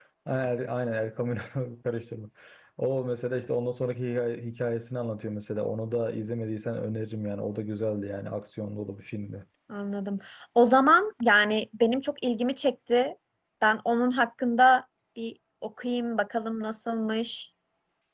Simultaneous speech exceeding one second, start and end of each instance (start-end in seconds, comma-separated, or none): none